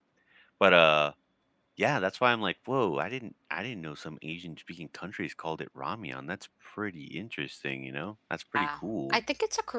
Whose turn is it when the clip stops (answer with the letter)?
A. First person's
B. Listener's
B